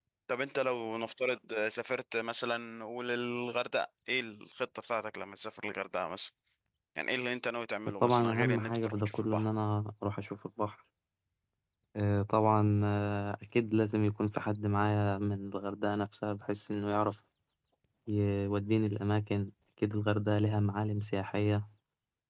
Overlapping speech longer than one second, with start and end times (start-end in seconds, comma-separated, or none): 8.0-9.4